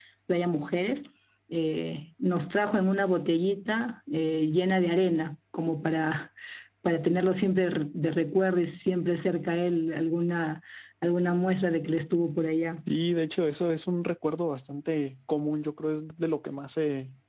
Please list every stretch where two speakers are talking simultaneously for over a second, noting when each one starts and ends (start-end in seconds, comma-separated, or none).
none